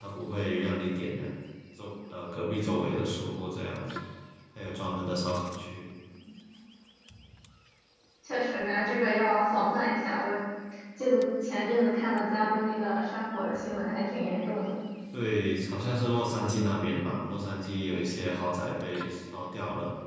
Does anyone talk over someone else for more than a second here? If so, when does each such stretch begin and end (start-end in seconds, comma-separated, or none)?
none